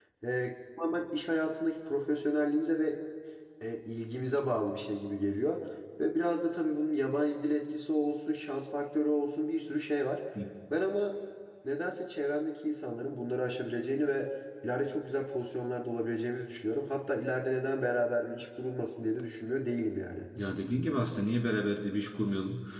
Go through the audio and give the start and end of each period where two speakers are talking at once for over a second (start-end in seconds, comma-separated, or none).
none